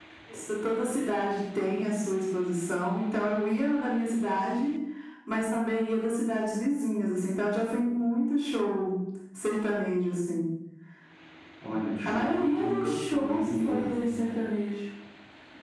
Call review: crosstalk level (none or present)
present